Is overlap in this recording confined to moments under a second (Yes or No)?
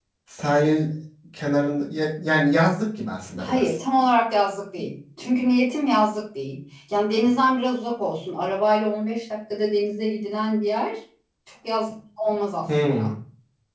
Yes